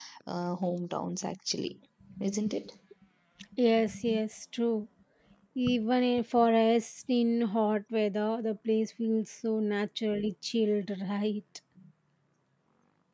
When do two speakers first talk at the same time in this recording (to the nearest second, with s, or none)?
none